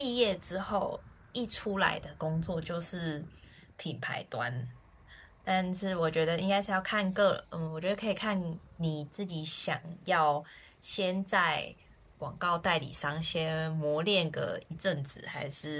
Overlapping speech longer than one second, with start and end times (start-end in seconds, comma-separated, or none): none